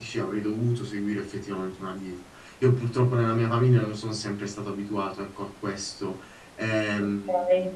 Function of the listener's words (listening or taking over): taking over